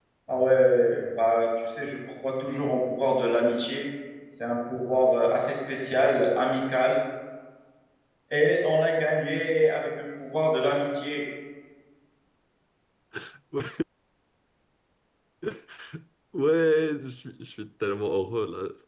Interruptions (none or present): none